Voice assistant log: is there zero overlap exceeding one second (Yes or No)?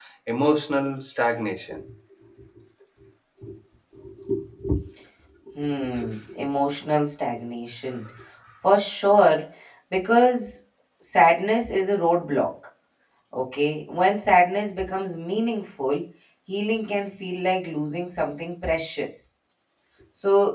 Yes